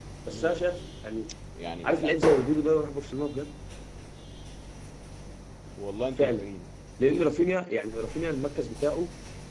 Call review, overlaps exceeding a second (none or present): none